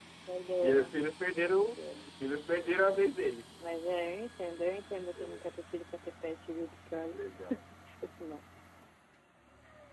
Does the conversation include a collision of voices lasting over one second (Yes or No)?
No